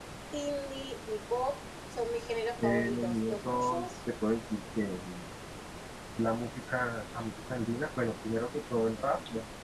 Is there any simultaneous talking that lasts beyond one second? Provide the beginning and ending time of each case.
2.6-3.9

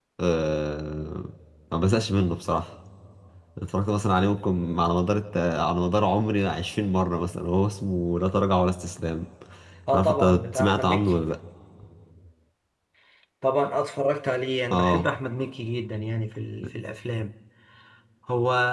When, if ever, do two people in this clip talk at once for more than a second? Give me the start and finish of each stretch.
9.9-11.1

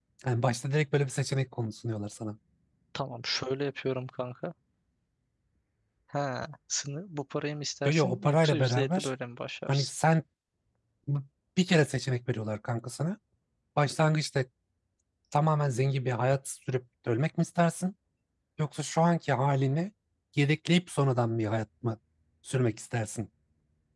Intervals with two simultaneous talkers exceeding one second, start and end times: 7.8-9.1

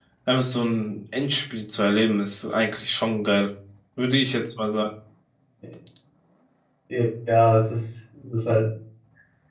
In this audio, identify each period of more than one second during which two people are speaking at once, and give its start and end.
none

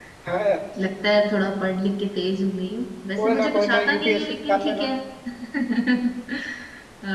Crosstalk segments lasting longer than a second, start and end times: 3.2-4.9

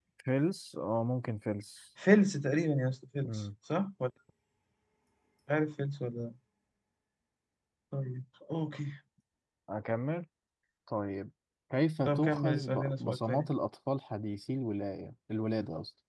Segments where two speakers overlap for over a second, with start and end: 12.1-13.5

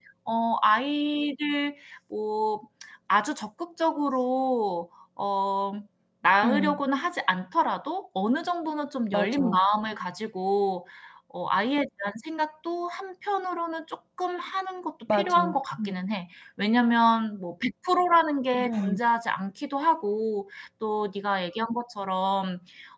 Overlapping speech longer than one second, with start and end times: none

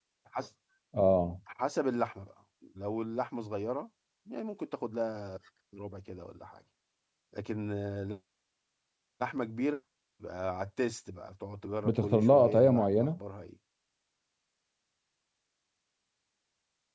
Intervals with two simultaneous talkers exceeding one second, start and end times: 11.8-13.2

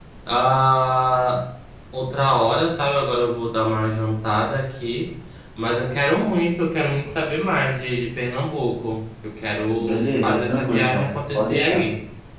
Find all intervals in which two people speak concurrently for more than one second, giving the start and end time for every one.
9.8-11.8

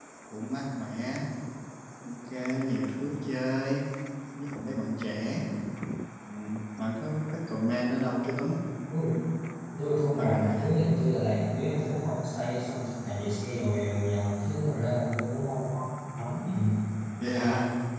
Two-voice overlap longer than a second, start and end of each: none

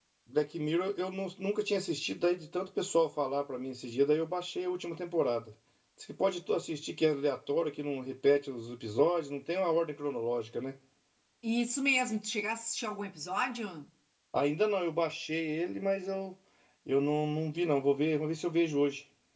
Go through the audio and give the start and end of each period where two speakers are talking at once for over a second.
none

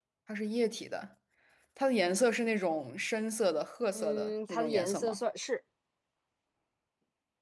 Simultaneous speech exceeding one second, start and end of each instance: 3.9-5.2

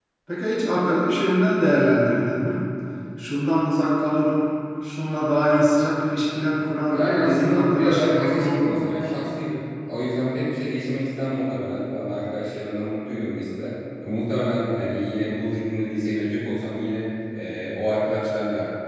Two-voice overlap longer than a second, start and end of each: 6.9-8.8

